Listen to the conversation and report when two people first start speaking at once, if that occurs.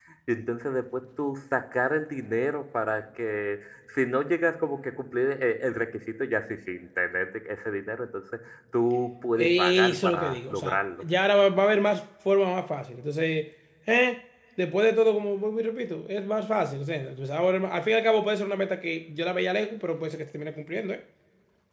9.4 s

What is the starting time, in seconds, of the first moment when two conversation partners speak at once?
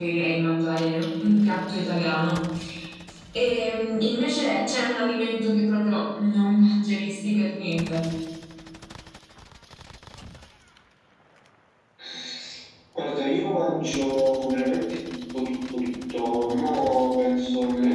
none

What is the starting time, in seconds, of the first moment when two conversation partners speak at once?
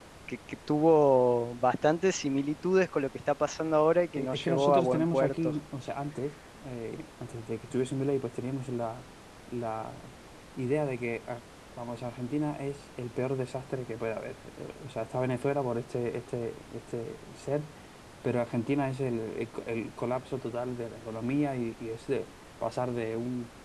4.2 s

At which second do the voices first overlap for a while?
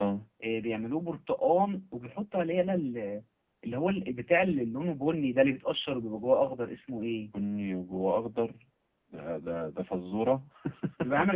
none

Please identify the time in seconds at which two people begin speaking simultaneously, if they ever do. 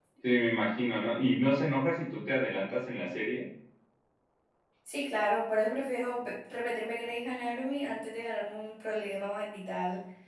none

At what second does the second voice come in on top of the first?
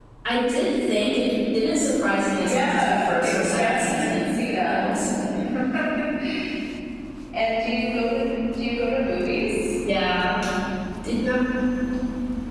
2.4 s

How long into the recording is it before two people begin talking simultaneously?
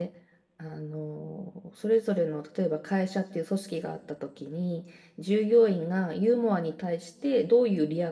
none

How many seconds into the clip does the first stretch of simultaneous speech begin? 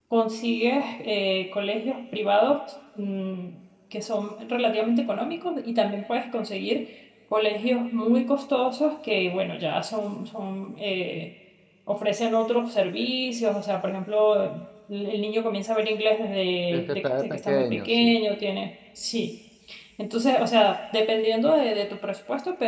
16.7 s

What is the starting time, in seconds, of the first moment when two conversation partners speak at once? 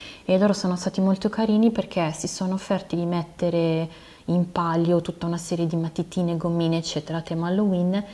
none

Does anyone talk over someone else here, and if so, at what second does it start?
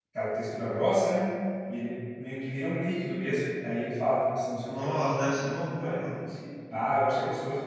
4.6 s

